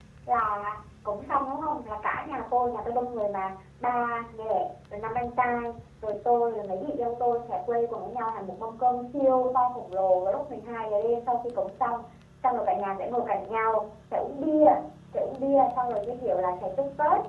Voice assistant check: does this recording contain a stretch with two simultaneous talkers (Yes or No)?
No